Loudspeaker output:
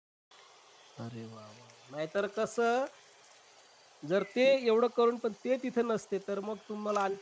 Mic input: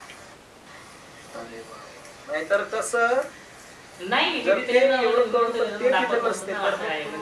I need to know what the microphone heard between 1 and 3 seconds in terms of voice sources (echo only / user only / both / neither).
echo only